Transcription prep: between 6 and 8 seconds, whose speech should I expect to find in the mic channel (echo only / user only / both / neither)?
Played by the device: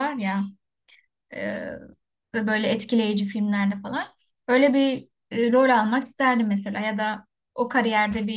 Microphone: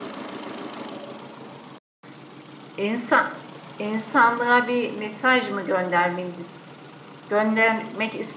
user only